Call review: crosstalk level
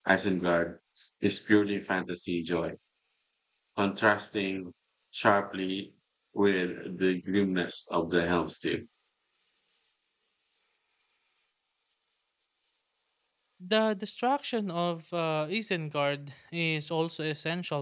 none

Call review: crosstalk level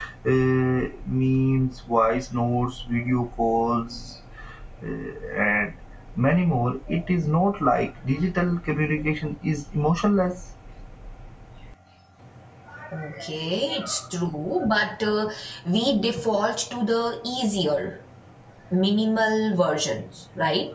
none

